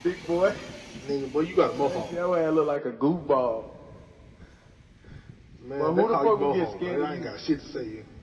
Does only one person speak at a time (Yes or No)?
No